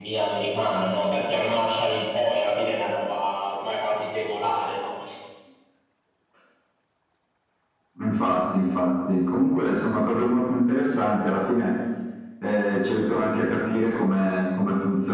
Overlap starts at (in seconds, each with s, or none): none